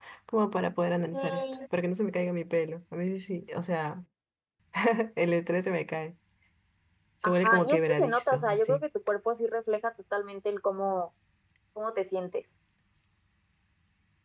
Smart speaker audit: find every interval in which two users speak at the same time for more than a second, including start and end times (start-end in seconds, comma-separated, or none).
7.2-8.8